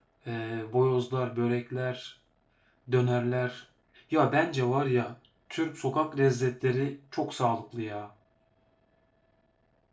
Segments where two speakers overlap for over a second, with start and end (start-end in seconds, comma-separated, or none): none